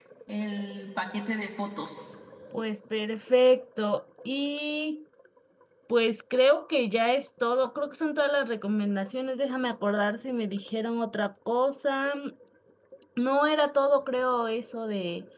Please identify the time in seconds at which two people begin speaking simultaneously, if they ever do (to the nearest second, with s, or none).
none